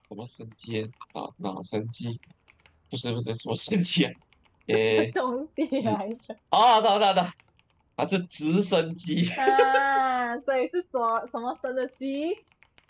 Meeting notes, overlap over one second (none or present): none